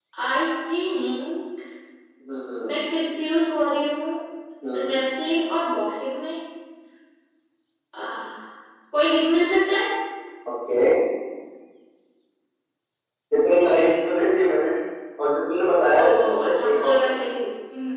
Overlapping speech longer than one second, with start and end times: 16.0-17.2

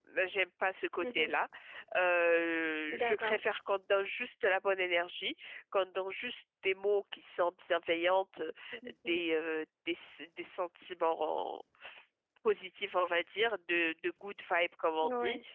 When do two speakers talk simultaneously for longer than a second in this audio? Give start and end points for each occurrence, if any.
none

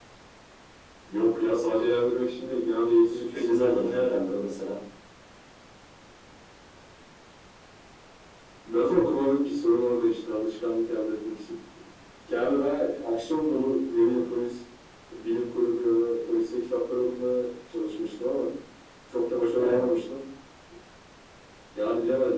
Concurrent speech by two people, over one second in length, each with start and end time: 3.0-4.5

